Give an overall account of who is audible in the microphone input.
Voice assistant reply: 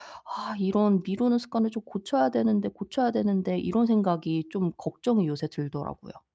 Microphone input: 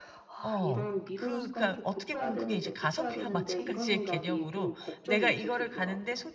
both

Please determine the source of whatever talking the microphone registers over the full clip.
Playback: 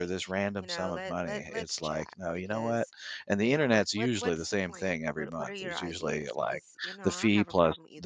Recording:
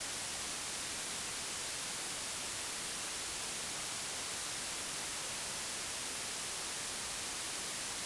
neither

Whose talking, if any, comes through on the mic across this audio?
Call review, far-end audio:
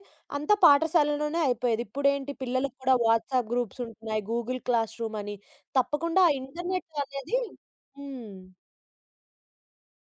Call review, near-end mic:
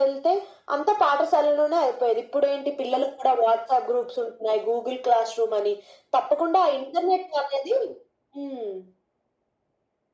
echo only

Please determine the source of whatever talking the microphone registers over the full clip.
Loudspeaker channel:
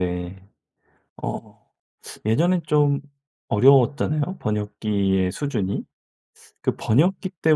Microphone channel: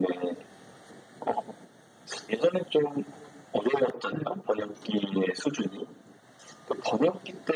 echo only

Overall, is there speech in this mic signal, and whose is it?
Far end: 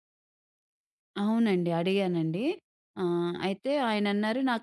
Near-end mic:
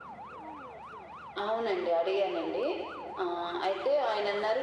echo only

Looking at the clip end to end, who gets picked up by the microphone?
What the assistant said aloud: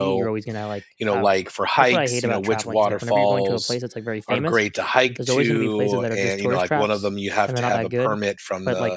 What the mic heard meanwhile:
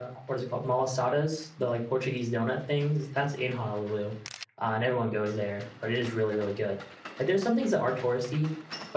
user only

